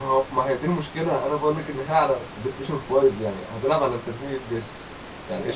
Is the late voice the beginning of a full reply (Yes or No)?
Yes